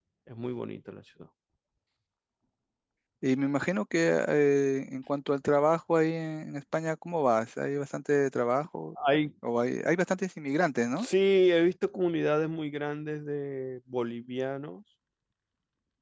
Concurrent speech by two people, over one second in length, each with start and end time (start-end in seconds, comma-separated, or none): none